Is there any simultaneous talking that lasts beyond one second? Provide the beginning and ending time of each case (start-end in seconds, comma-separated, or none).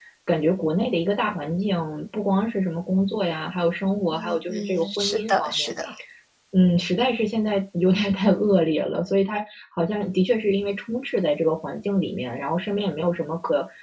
4.1-5.7